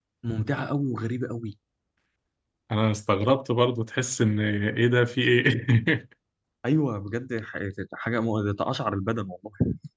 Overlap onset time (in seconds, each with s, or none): none